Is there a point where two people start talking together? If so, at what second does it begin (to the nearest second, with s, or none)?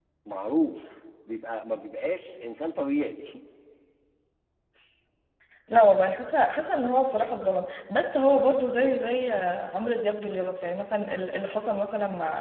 none